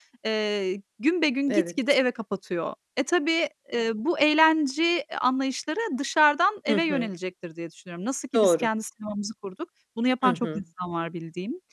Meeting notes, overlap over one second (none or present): none